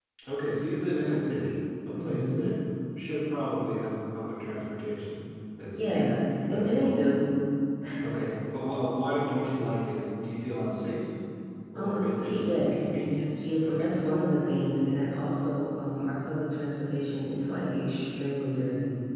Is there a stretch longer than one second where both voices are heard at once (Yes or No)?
Yes